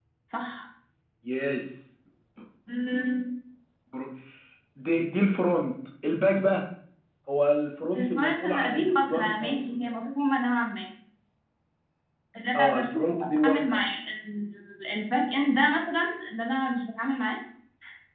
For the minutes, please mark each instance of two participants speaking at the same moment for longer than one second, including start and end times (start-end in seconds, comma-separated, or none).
8.0-9.8, 12.5-13.8